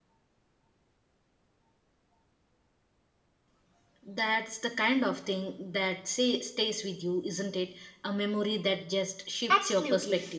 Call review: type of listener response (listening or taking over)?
taking over